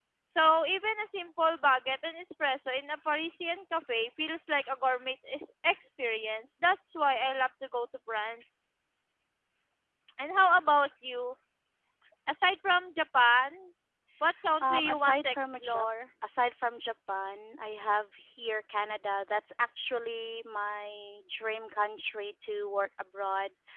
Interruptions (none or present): present